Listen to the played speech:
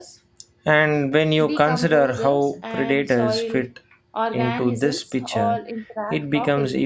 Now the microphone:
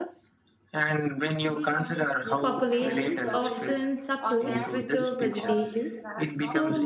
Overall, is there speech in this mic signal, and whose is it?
both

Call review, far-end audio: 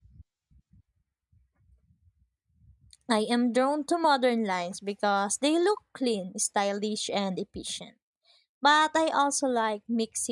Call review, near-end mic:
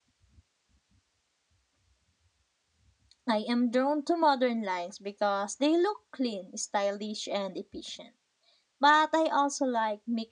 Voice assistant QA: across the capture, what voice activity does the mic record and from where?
echo only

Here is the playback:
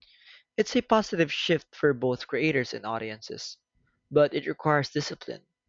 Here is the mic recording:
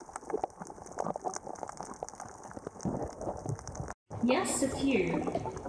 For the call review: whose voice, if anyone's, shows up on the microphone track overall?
user only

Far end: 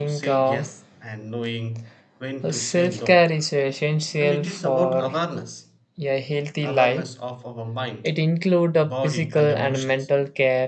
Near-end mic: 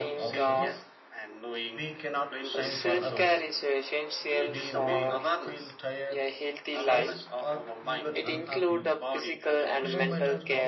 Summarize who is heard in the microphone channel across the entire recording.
both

